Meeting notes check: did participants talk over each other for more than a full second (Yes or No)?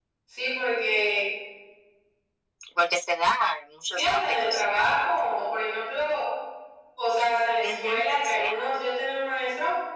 Yes